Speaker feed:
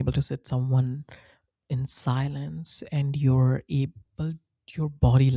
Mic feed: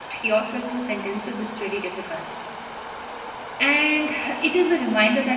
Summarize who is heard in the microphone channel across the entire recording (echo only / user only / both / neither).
user only